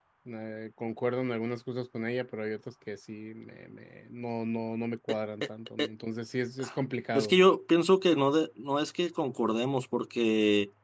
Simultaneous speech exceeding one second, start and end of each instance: none

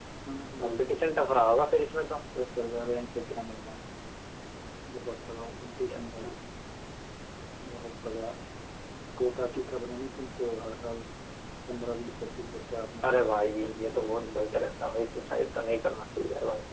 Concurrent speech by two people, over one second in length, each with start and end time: 13.0-14.7

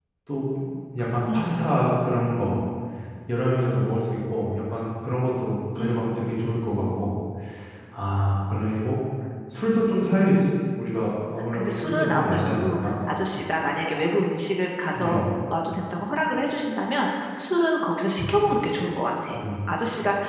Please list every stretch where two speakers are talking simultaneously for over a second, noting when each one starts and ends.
11.5-12.9

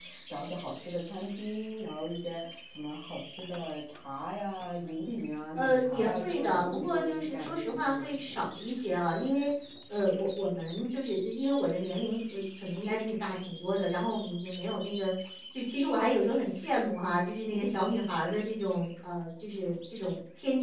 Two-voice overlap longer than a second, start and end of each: 5.5-8.5

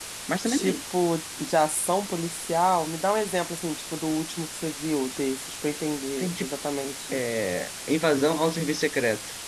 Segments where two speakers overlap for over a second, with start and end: none

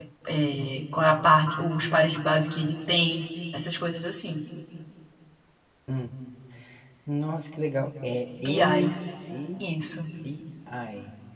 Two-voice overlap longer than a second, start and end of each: none

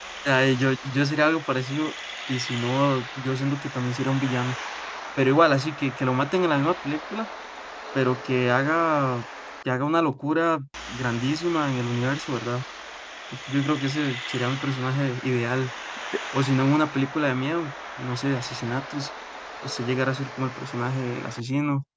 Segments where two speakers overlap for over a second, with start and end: none

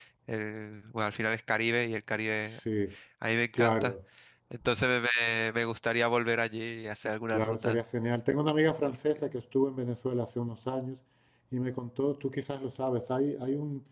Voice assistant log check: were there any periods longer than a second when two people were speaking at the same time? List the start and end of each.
none

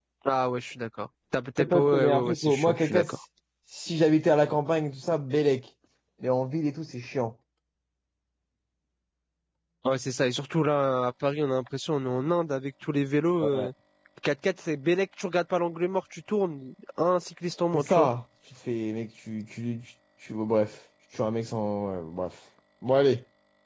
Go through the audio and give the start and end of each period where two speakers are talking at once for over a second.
1.6-3.1

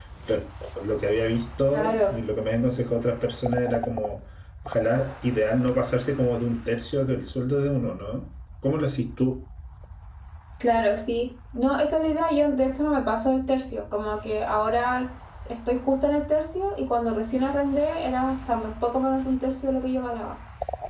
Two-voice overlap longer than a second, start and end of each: none

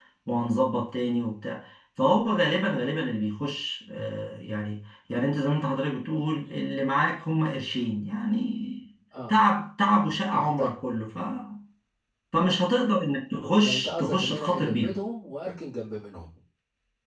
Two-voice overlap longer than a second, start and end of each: 13.6-14.9

